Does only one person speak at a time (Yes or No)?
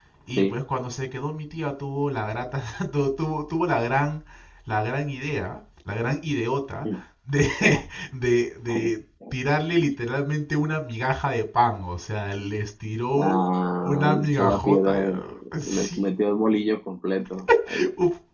No